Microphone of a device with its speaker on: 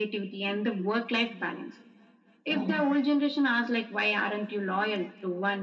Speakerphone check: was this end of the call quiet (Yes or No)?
Yes